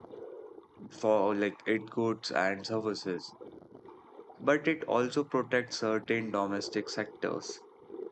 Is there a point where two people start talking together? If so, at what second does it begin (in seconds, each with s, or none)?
none